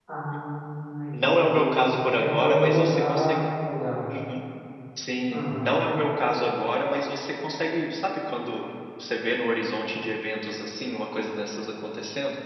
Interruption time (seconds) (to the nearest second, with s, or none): 1 s